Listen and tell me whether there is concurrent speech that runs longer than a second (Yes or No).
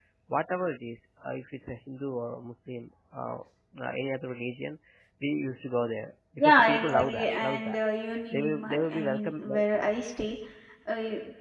Yes